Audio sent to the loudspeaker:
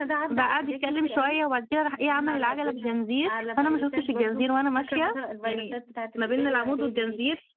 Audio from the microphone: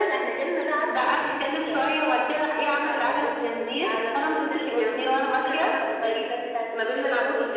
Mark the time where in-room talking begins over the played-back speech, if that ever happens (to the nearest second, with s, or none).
none